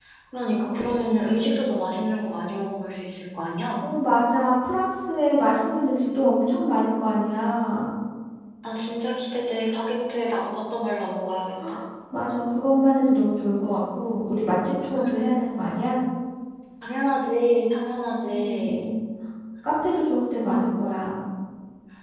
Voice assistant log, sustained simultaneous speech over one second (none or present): none